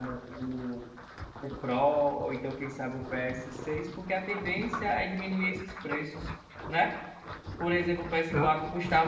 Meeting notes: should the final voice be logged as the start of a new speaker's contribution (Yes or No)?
No